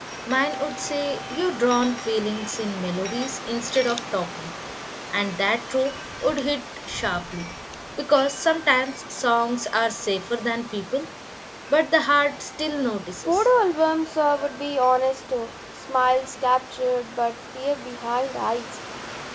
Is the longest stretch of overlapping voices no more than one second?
Yes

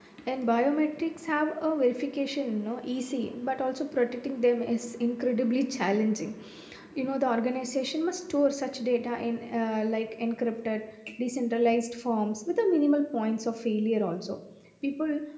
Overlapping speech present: No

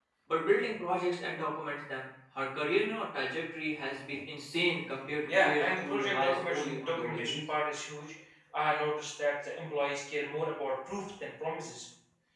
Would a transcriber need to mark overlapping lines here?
Yes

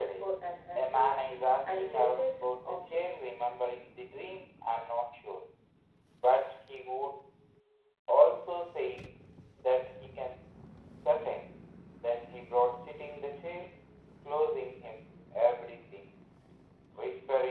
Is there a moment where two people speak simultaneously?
Yes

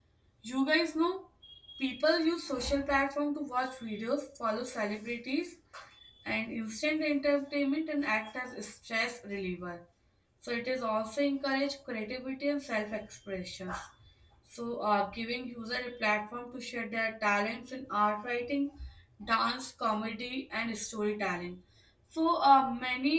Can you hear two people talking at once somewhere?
No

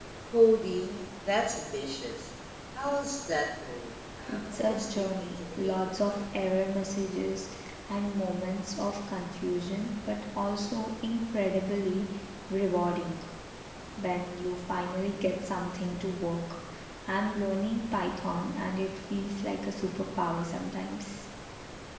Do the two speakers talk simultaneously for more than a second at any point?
Yes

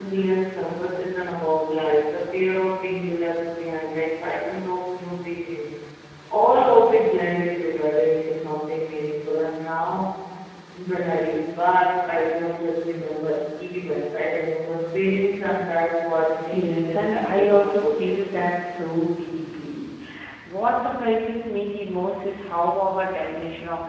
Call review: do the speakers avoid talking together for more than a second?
No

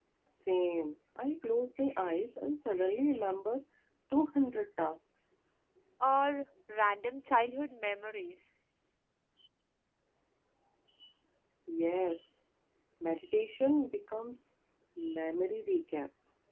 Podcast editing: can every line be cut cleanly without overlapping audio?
Yes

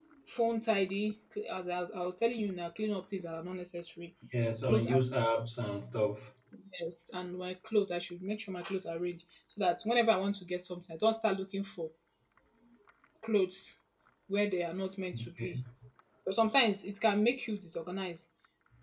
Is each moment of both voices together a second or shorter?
Yes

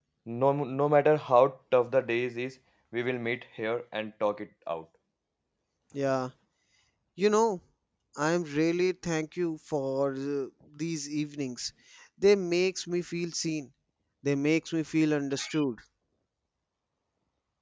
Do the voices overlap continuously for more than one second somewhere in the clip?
No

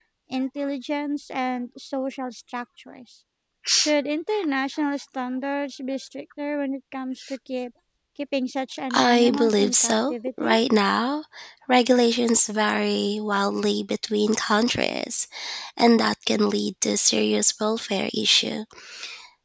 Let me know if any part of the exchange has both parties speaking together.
Yes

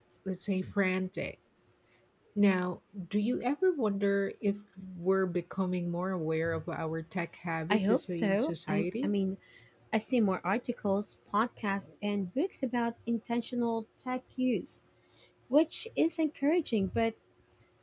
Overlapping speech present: Yes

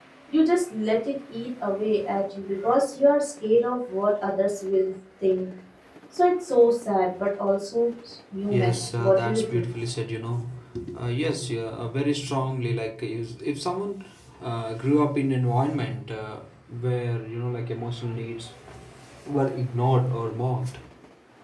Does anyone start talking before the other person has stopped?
Yes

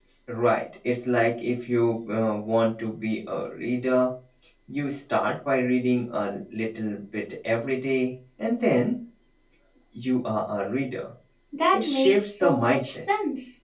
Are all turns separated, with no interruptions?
No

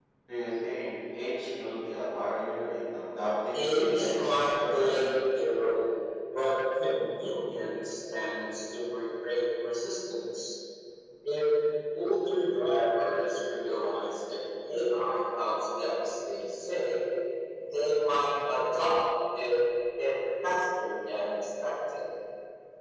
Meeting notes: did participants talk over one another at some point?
Yes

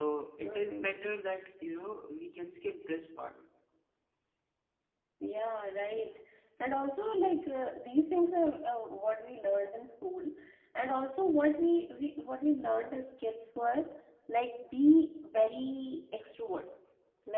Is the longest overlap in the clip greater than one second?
No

